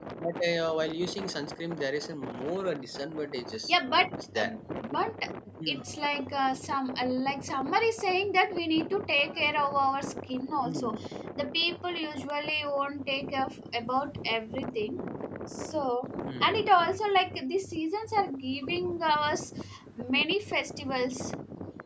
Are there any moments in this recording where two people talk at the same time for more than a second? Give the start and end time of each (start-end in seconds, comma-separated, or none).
none